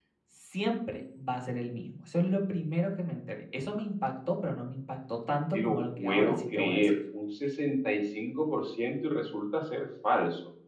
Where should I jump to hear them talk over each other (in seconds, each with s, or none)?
5.3 s